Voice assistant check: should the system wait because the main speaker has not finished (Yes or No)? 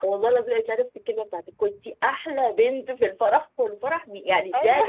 Yes